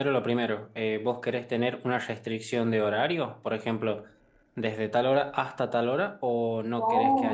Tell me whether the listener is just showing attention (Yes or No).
No